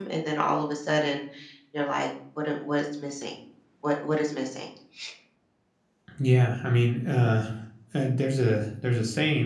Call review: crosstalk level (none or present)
none